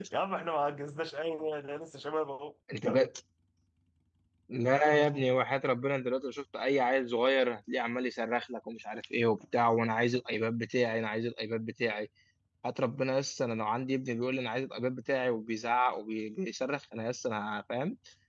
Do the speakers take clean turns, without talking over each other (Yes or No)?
Yes